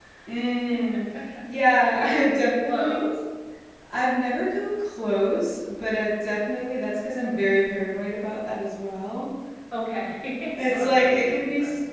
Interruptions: present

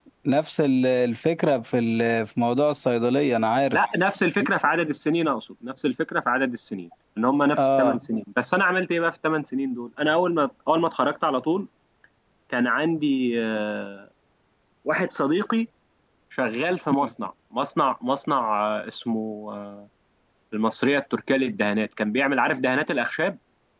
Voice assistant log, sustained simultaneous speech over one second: none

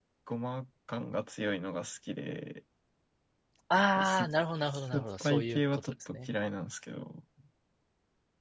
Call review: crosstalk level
present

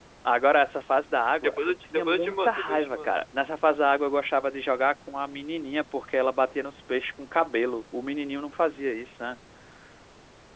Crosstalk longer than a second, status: present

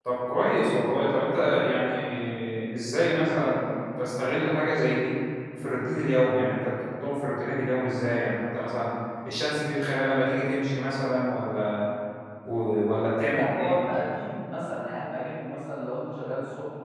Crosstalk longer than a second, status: none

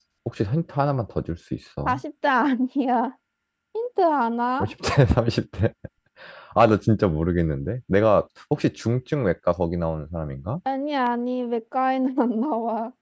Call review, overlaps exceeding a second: none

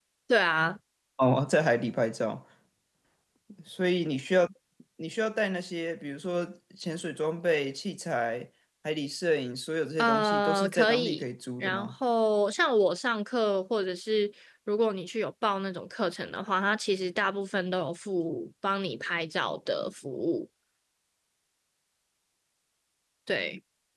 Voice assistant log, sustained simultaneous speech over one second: present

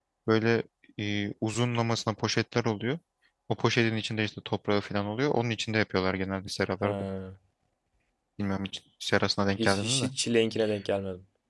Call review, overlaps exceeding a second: none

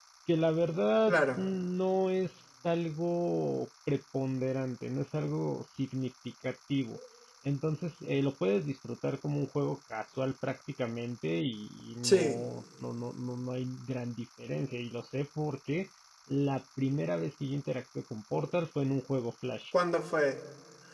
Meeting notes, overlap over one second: none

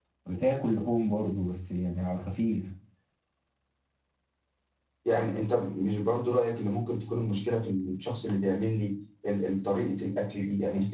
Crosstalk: none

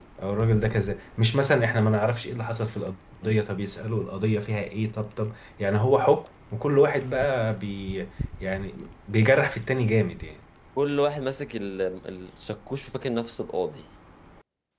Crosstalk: none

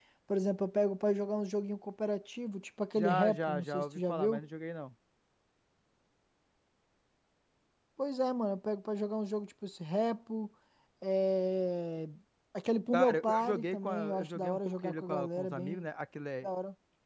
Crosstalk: present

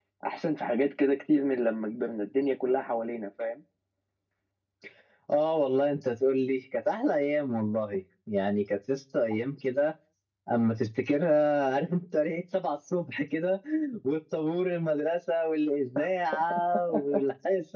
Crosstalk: none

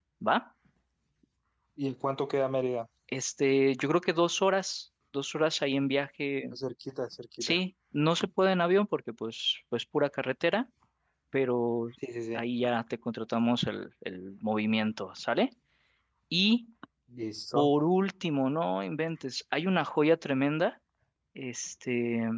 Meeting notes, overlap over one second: none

